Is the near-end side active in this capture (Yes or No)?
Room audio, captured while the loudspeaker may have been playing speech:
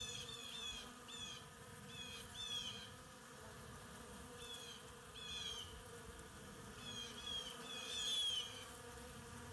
No